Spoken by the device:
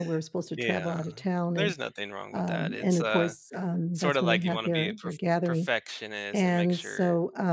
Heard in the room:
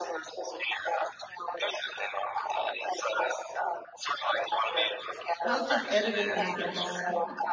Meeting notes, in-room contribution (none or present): present